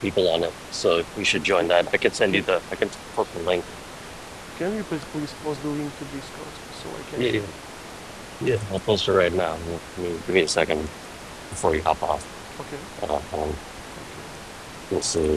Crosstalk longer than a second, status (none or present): none